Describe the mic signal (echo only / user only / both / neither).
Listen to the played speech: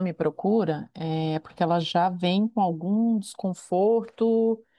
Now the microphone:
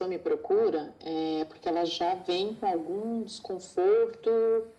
echo only